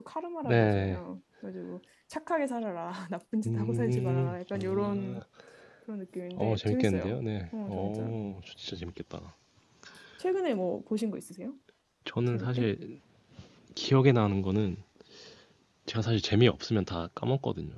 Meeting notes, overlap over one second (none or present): present